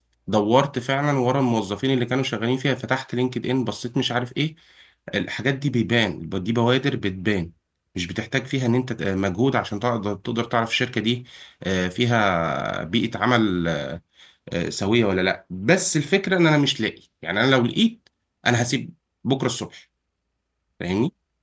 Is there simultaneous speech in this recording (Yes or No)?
No